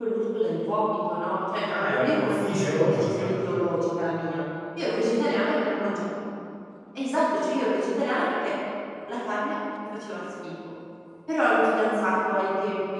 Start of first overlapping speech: 2 s

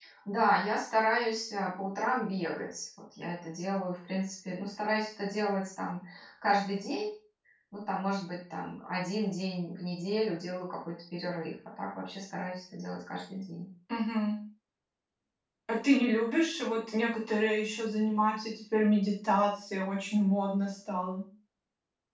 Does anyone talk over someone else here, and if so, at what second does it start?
none

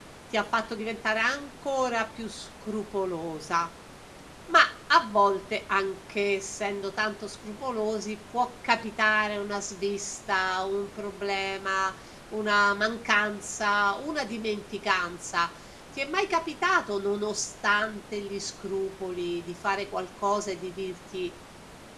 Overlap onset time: none

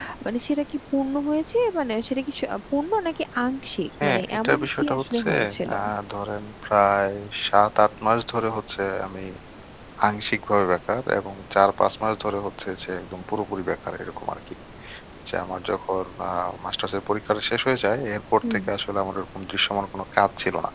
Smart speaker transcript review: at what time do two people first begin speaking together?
4 s

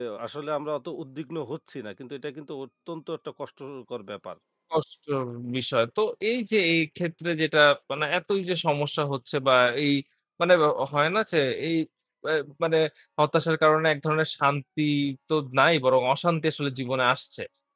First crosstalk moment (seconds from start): none

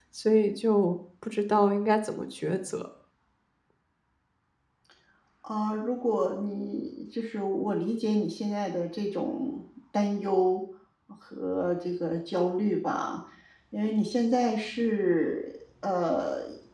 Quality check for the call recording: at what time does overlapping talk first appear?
none

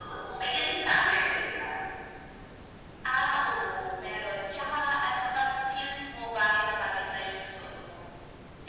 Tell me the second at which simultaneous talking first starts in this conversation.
none

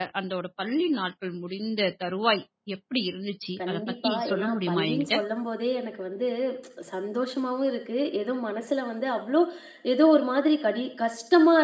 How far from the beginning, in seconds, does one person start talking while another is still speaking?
4 s

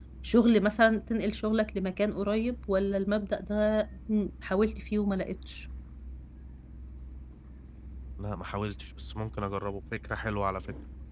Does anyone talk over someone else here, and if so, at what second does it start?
none

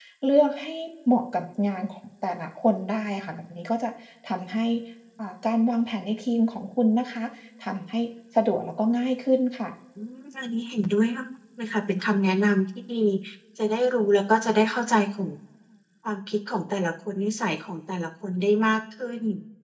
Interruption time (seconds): none

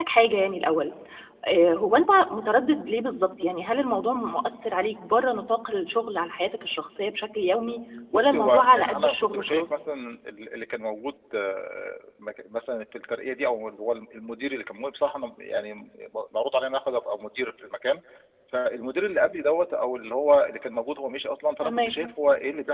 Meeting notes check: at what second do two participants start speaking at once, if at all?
8 s

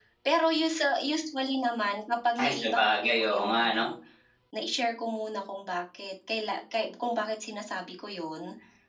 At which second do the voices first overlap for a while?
2 s

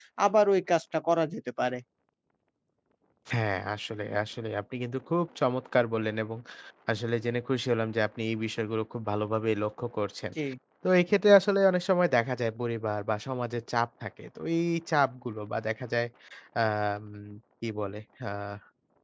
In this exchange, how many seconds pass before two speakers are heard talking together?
none

